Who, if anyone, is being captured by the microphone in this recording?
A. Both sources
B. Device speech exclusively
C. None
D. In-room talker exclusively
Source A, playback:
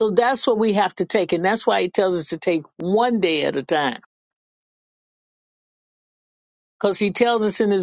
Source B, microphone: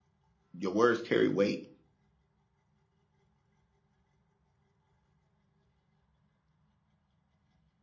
D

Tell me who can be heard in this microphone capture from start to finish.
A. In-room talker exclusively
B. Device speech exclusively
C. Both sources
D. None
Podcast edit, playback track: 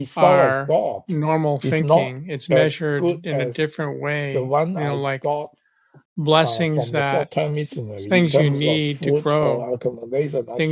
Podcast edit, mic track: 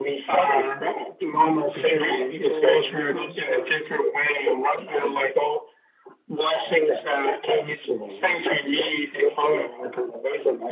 C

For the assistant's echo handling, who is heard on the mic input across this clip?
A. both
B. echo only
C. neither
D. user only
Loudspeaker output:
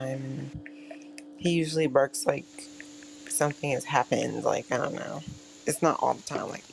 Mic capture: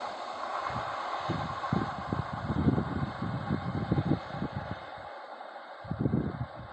C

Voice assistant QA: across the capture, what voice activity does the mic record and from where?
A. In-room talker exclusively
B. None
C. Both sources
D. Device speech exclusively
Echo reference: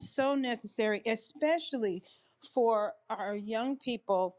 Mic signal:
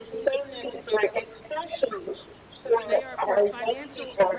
C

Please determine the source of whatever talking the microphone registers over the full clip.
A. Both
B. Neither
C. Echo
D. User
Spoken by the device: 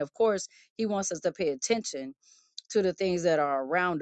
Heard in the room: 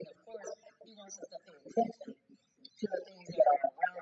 C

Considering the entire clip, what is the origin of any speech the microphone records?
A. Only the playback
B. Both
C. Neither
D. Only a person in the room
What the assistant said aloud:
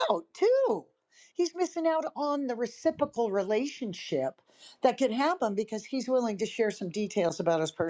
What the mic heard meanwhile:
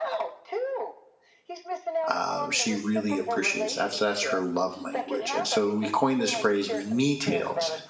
B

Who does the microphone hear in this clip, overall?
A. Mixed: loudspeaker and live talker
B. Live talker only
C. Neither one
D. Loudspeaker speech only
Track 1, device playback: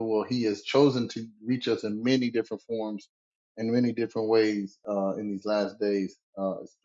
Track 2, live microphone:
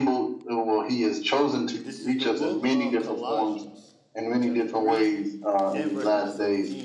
A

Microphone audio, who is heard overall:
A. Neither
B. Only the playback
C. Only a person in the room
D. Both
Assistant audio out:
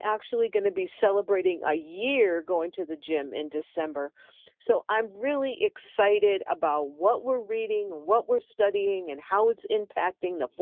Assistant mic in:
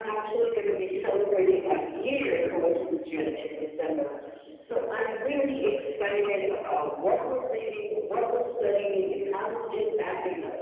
B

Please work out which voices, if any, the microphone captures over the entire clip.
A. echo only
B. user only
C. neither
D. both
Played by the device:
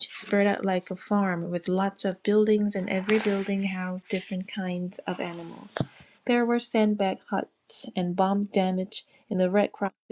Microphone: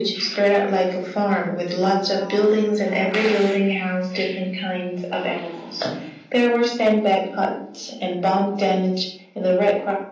D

